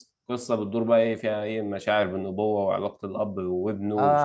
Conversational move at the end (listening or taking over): taking over